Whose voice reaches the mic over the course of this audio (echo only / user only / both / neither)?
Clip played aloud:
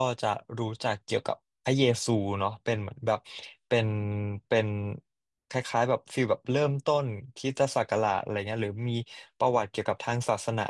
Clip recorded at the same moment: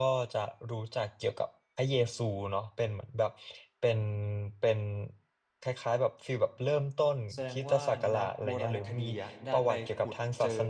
both